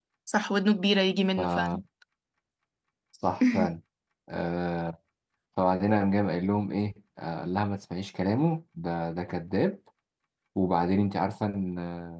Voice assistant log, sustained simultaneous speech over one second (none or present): none